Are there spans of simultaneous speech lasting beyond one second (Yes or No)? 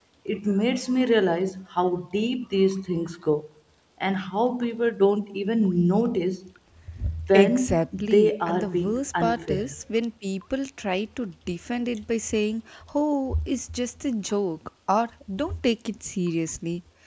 Yes